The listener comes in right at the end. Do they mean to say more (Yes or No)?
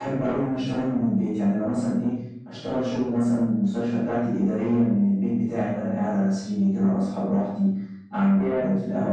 No